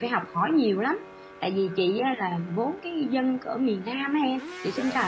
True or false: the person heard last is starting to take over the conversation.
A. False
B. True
A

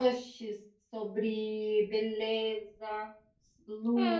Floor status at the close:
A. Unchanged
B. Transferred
B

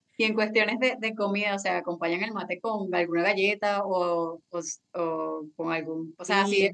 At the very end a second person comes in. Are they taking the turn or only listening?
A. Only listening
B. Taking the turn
A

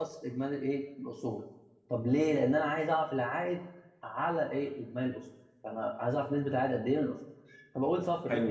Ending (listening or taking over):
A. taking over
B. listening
A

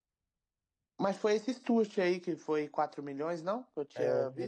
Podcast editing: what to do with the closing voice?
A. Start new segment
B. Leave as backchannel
A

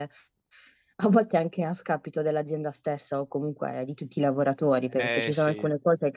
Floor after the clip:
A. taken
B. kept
B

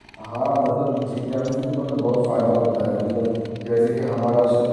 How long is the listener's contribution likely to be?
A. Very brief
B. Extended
A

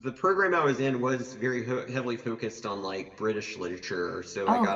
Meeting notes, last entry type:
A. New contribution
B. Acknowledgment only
B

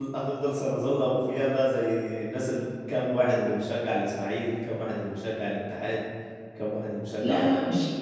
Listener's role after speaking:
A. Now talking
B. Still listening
A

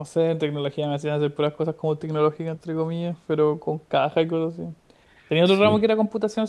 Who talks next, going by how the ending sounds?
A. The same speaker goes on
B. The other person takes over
A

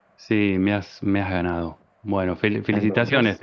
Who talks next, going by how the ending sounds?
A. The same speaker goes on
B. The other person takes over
A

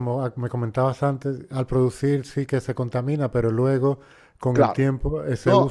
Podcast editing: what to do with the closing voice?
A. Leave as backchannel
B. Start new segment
B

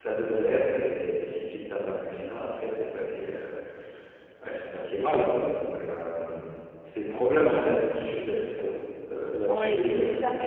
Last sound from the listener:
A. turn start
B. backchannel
A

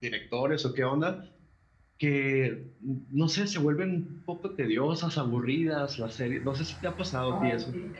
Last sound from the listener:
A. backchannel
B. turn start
B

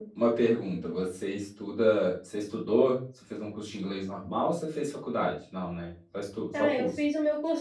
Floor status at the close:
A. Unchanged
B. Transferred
B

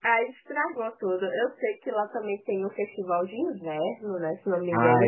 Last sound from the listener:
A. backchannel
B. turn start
B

